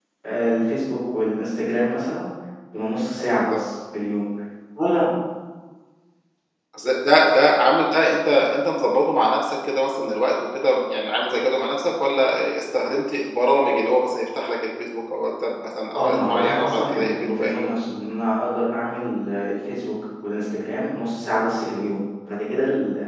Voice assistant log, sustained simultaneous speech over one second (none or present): present